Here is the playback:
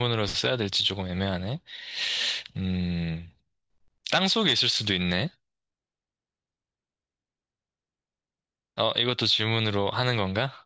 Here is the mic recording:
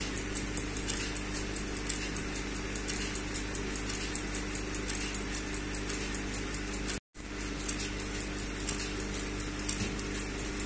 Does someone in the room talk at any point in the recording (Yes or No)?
No